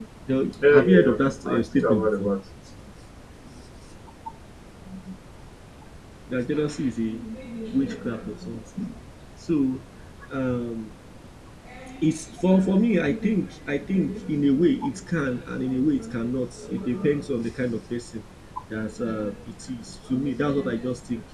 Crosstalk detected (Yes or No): Yes